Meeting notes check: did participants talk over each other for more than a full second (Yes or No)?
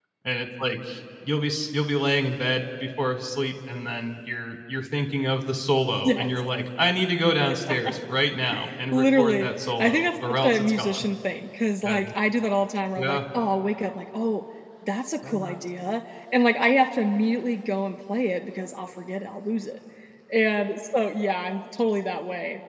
Yes